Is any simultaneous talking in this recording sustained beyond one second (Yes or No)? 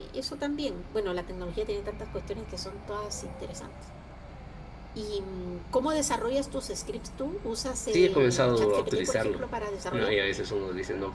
Yes